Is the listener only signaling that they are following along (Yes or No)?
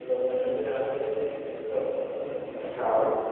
No